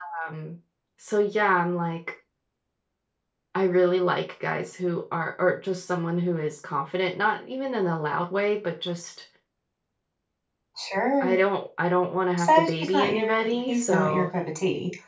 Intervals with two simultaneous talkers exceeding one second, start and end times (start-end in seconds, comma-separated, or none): 12.4-14.3